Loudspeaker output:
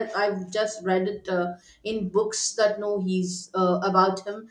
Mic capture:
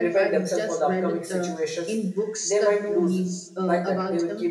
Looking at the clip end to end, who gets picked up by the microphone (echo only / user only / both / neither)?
both